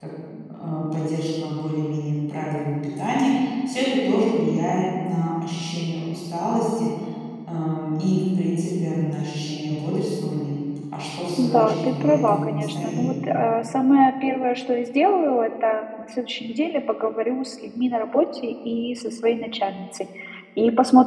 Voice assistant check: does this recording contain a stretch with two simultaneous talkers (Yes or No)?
Yes